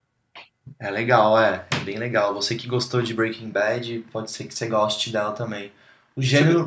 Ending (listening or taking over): listening